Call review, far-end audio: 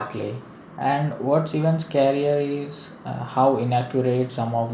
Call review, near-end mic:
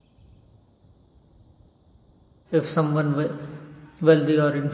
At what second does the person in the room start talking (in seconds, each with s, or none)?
2.6 s